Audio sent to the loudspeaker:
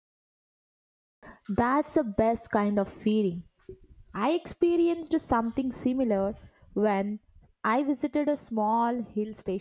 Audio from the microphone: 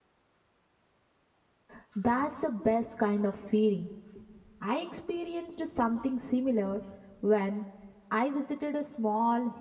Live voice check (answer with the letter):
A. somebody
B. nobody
B